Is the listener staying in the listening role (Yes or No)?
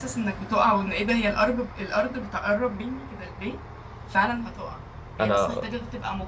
Yes